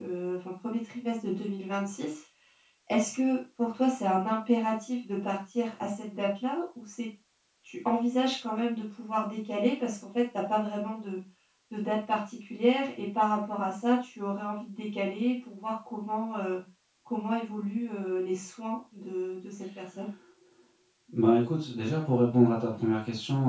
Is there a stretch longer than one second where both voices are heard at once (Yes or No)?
No